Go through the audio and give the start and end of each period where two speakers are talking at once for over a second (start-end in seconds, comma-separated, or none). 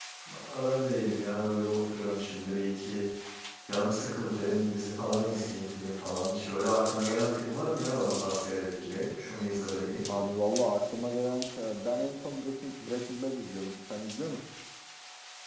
none